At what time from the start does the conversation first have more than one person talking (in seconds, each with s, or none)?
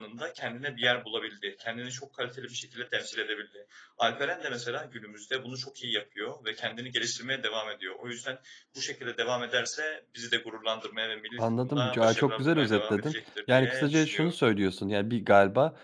11.4 s